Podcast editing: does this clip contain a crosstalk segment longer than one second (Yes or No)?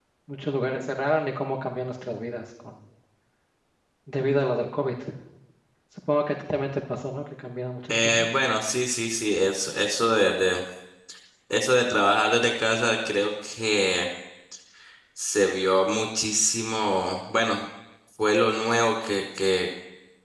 No